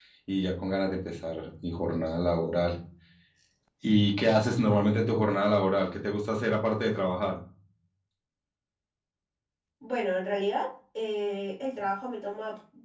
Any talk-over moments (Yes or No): No